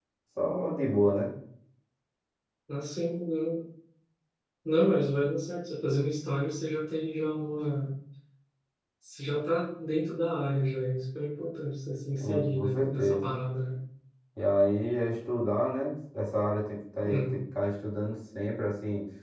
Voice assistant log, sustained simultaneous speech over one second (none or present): present